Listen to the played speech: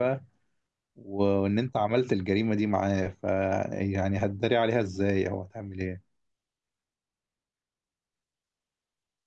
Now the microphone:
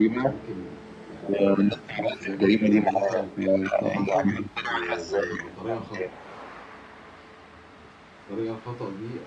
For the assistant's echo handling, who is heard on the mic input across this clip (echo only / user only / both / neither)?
both